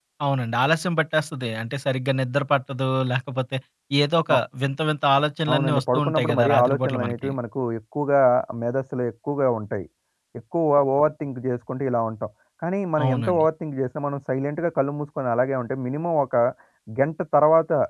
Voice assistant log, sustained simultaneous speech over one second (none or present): present